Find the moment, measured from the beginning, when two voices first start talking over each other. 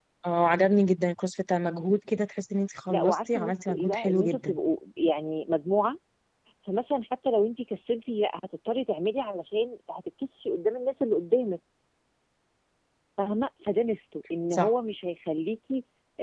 2.9 s

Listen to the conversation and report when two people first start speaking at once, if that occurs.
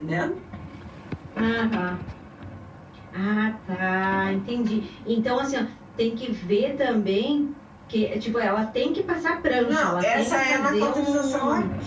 9.6 s

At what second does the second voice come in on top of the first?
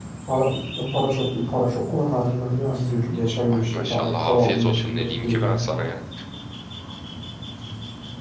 3.4 s

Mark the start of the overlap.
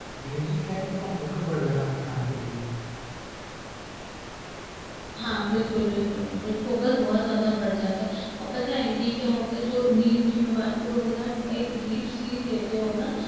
none

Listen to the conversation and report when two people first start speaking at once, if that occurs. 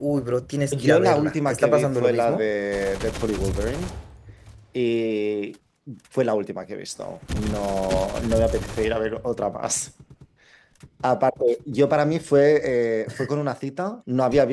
0.7 s

